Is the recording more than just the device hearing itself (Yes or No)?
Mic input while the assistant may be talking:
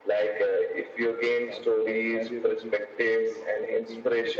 Yes